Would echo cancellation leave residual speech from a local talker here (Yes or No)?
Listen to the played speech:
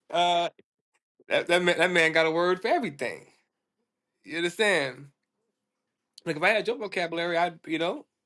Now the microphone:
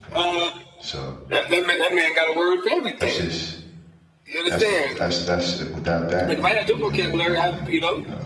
Yes